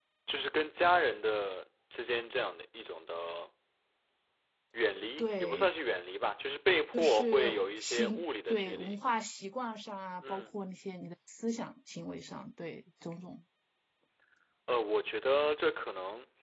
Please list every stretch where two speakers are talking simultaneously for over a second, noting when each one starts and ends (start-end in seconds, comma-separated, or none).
6.9-9.0